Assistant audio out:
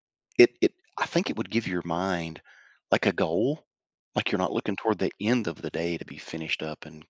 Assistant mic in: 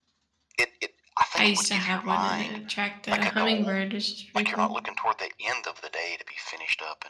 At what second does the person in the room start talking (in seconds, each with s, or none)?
1.4 s